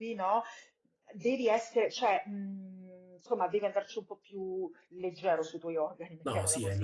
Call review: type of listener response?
taking over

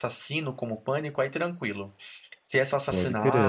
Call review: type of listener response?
listening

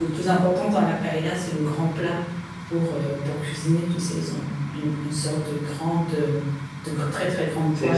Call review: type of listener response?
taking over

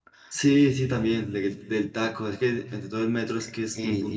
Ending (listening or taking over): taking over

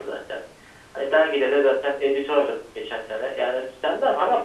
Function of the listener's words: listening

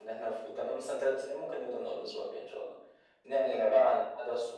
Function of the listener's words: listening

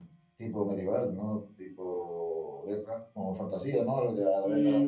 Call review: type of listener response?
taking over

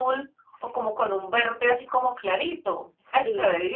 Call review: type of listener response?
taking over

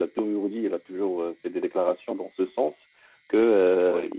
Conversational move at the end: listening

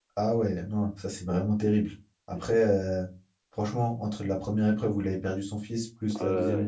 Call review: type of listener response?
listening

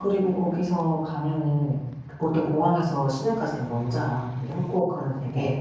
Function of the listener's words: listening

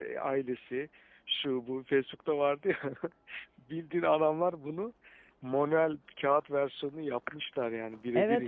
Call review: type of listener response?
taking over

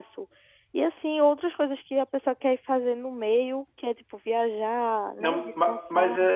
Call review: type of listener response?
taking over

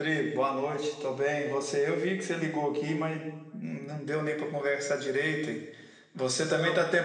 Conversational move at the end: listening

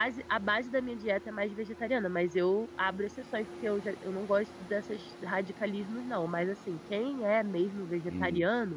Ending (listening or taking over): listening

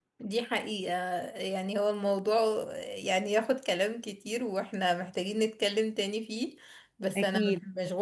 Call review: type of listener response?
listening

